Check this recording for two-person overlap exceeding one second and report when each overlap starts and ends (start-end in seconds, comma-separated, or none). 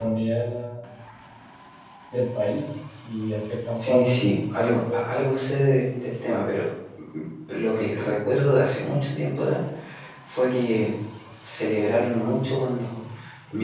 3.8-5.2